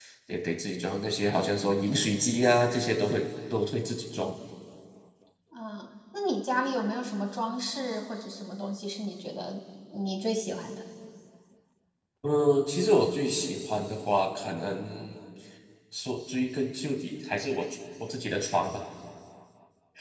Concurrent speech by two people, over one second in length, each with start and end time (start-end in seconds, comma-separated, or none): none